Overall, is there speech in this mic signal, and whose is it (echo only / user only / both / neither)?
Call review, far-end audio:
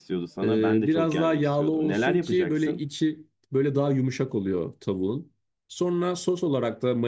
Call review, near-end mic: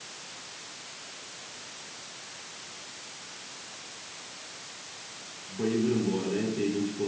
user only